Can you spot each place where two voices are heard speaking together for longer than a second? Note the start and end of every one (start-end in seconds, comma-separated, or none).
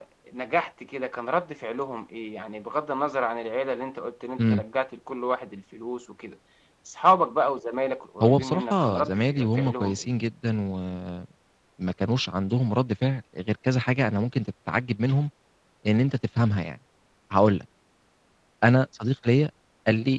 8.2-10.1